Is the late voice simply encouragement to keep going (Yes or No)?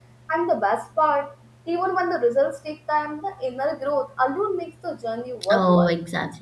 No